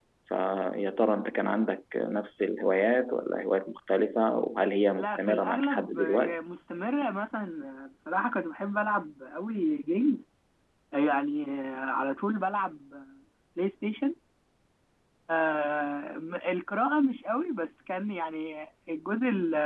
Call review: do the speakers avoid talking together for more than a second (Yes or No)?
No